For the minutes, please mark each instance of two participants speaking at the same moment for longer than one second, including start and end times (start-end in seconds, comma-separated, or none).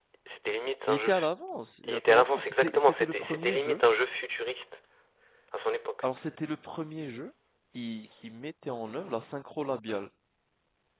1.8-3.8